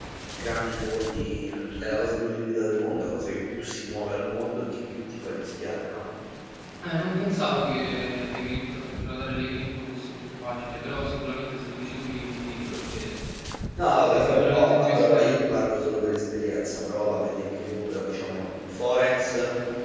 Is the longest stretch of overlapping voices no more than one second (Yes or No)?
No